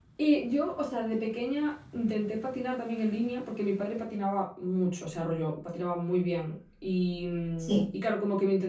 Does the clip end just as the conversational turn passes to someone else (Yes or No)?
No